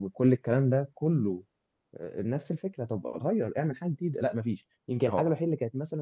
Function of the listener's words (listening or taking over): listening